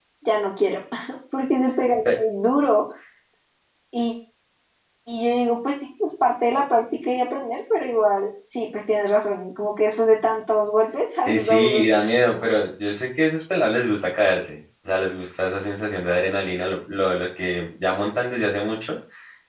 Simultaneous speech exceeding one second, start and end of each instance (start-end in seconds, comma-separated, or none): 11.2-12.5